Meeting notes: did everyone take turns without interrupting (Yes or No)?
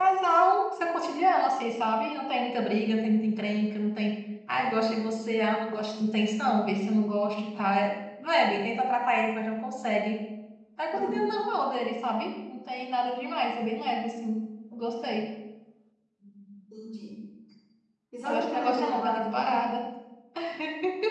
No